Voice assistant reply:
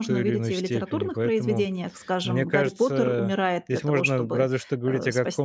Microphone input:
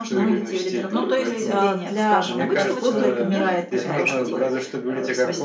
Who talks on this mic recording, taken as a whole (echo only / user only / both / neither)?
both